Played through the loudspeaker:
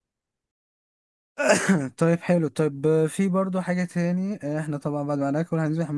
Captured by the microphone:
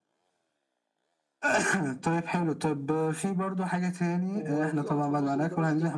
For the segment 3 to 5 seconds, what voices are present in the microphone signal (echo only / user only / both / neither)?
both